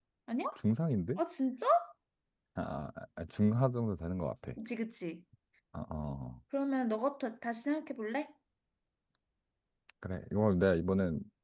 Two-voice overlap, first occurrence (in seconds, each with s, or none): none